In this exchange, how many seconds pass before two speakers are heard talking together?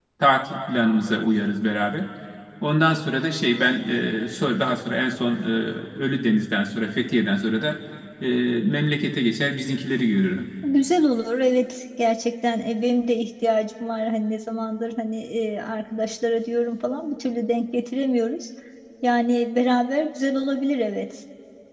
none

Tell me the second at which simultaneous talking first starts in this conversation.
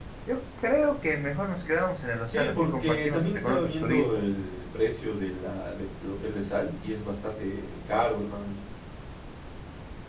2.3 s

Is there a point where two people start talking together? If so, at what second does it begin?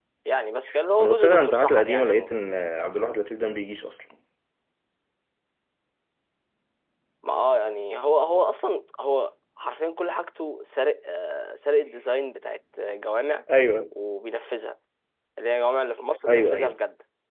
1.0 s

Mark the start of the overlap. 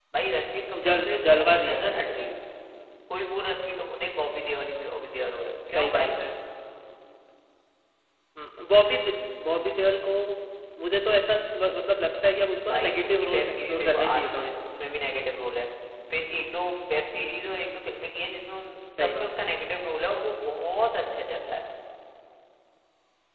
0.8 s

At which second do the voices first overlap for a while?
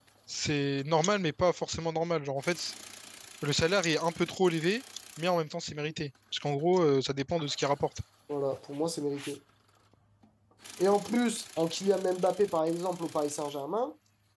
none

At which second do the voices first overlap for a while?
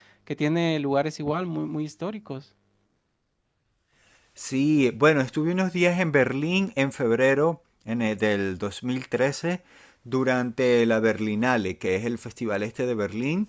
none

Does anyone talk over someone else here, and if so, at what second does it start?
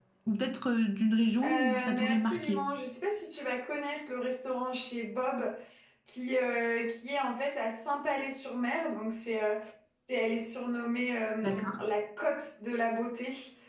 1.4 s

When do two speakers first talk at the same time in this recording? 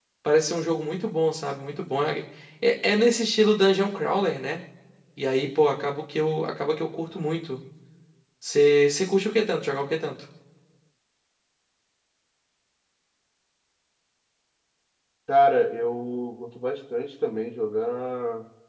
none

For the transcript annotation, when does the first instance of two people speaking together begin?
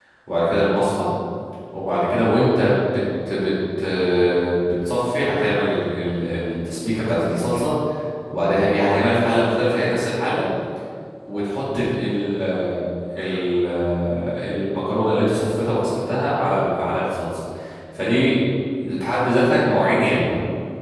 none

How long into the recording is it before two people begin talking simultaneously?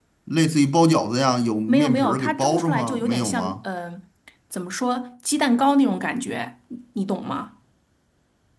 1.7 s

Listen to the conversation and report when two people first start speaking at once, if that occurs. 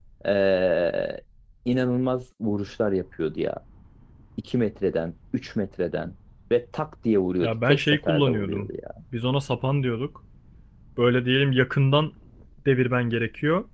7.4 s

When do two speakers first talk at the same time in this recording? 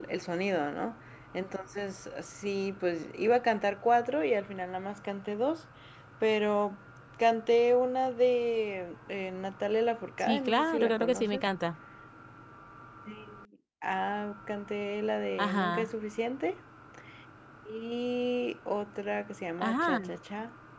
10.2 s

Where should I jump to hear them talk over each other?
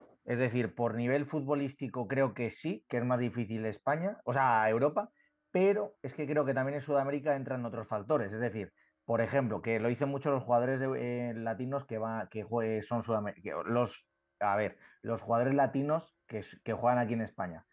none

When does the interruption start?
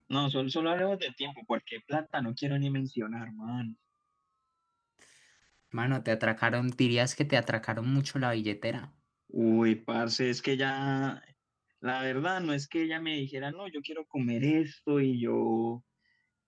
none

